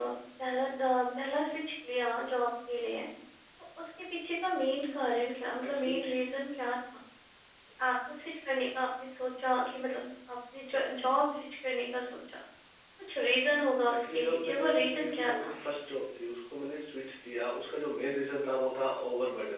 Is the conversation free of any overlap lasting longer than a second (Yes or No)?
No